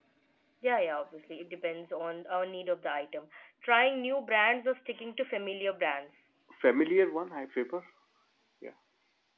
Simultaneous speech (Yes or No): No